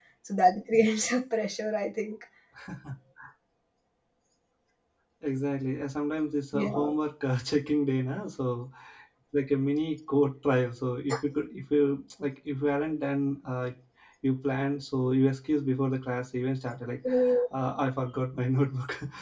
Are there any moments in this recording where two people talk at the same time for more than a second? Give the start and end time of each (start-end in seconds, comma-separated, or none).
none